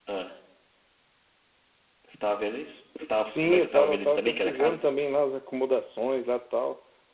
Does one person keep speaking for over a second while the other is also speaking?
Yes, from 3.3 s

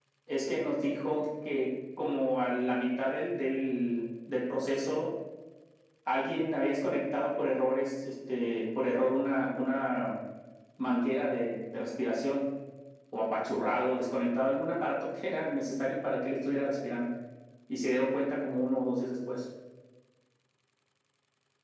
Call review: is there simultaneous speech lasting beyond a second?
No

